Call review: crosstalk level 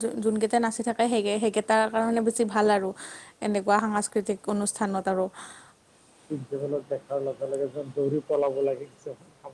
none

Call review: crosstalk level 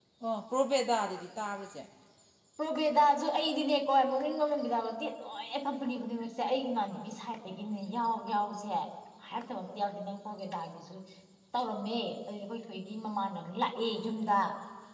none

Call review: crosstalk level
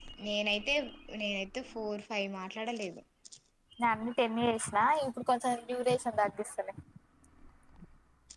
none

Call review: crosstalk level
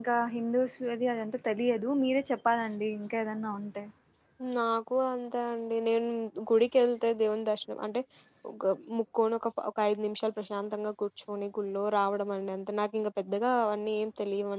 none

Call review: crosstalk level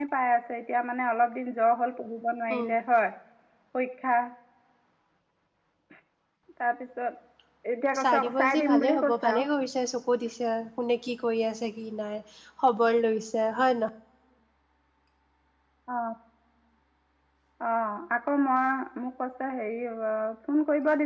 present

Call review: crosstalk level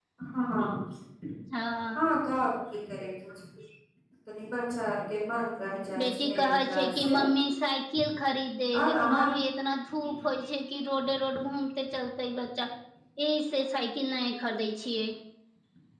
present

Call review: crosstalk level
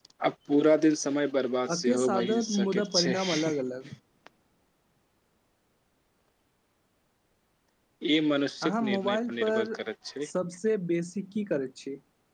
present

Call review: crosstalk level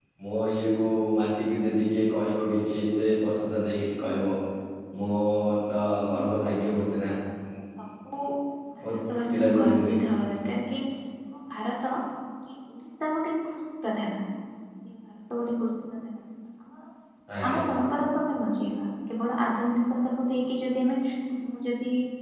present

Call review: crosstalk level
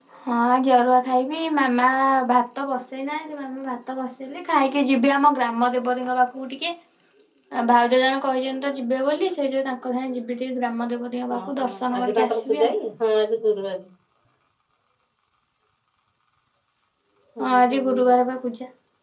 present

